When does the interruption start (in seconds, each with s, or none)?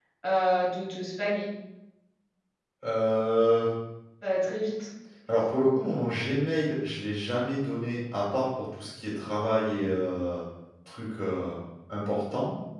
none